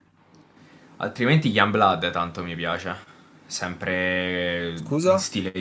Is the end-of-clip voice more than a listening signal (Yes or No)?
No